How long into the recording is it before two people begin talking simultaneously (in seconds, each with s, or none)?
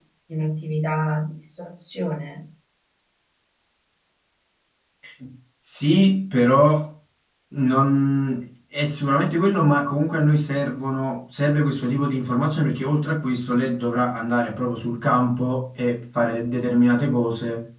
none